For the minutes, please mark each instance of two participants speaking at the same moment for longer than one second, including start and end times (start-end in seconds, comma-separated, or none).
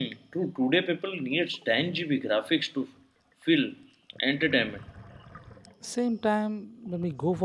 none